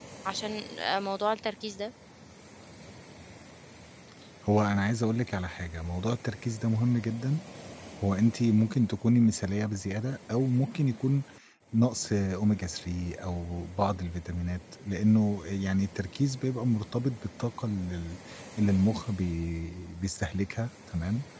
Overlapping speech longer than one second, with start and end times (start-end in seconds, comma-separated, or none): none